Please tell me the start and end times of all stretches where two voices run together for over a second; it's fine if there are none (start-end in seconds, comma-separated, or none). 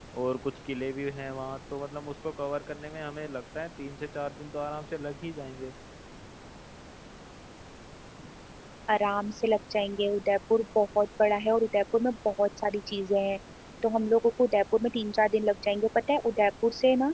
none